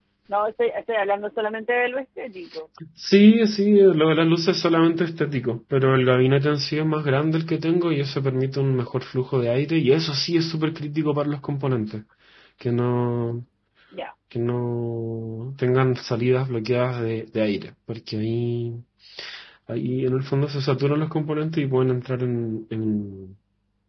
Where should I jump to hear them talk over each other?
none

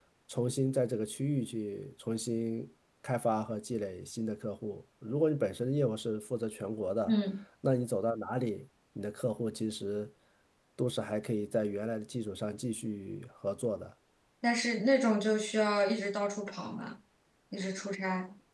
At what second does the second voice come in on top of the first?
none

